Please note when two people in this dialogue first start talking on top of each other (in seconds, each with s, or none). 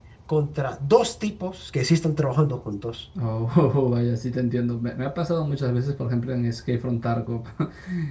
none